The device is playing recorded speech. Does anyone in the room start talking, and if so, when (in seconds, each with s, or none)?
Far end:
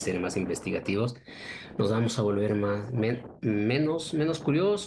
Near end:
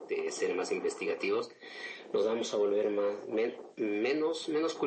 none